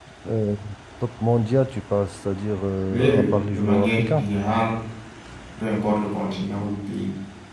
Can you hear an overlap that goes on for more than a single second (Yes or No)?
Yes